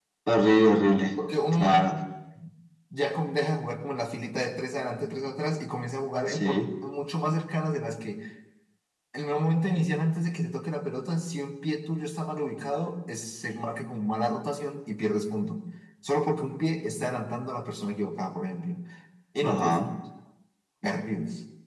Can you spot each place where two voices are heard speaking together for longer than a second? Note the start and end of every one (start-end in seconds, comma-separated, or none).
none